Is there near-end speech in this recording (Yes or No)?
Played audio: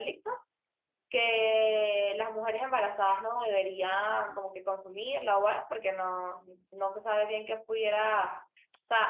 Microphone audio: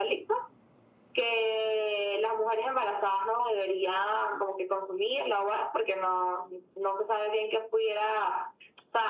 No